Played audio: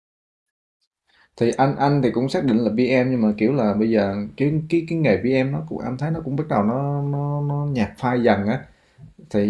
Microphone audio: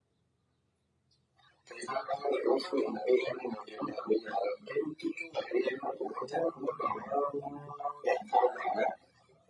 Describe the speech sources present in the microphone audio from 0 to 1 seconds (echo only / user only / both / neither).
neither